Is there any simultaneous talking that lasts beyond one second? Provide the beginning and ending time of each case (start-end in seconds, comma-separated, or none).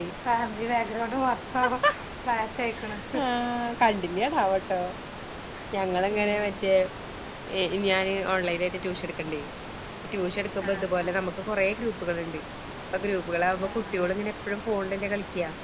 none